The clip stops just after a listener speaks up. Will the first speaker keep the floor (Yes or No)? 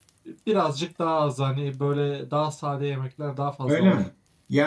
No